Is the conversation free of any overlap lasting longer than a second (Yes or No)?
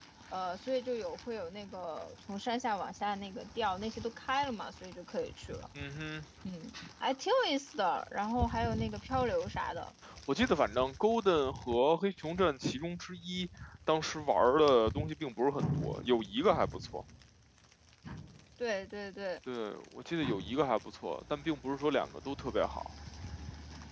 Yes